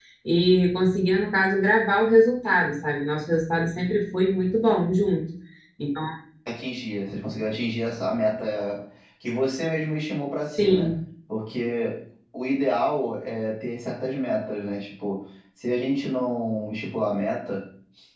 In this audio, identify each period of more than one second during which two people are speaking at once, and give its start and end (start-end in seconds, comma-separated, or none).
none